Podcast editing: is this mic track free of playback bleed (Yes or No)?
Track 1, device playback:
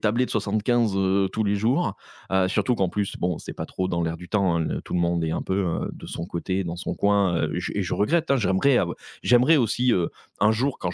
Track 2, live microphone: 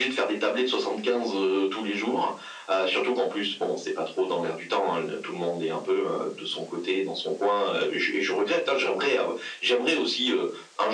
No